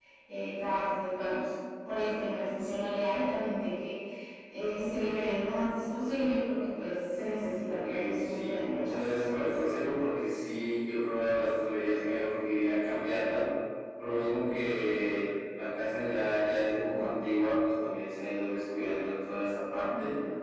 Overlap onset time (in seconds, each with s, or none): 7.7 s